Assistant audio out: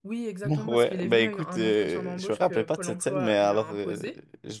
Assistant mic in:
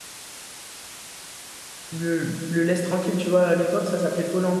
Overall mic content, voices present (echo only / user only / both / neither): user only